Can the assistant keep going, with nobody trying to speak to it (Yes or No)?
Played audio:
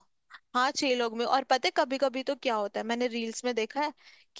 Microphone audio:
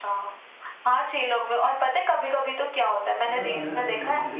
No